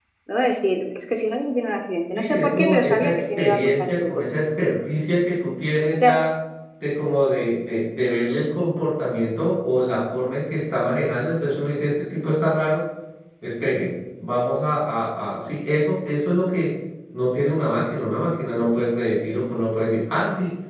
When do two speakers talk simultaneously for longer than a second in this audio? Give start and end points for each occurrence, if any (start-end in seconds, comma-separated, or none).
2.1-4.2